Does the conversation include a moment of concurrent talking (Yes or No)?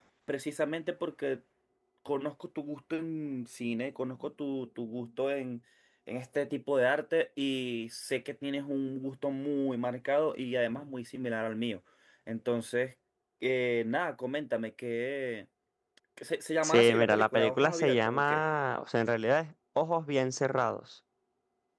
Yes